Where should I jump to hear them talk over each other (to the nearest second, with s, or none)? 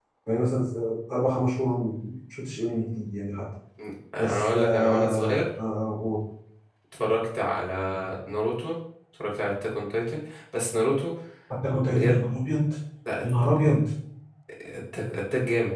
4 s